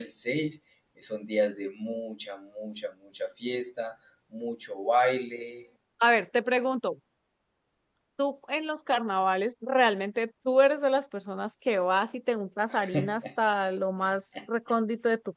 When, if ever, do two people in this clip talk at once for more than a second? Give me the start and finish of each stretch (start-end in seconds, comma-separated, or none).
none